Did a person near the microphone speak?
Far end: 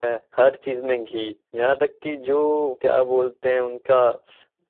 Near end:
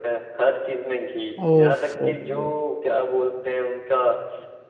Yes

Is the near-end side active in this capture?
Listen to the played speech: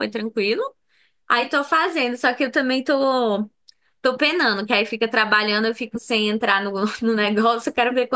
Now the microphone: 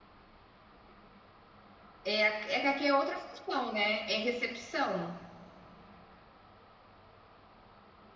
Yes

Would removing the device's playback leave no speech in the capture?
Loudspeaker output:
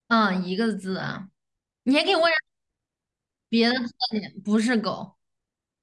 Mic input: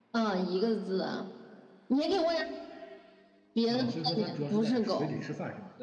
No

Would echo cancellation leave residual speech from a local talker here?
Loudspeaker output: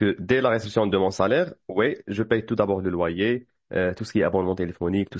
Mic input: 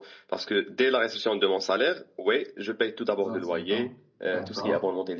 Yes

